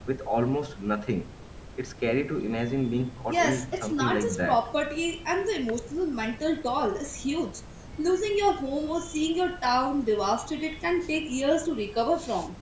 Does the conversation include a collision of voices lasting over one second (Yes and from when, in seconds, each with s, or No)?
Yes, from 3.3 s